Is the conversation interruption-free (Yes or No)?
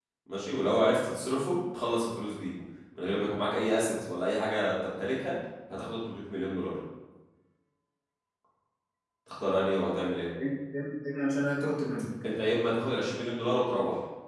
Yes